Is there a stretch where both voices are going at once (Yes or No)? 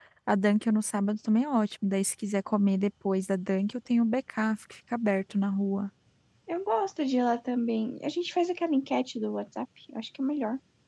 No